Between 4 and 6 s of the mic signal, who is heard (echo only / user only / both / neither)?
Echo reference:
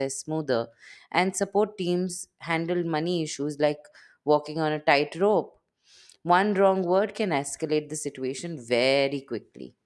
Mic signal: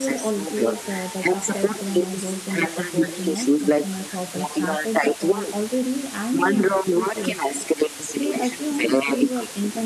both